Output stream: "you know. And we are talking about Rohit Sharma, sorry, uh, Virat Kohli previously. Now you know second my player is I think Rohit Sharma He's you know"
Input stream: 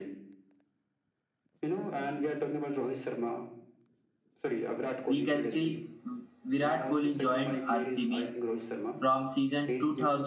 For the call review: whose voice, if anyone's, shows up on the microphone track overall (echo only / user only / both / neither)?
both